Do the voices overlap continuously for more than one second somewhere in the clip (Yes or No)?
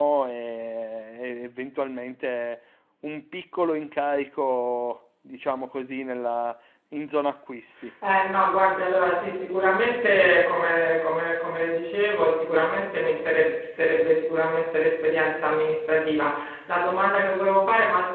No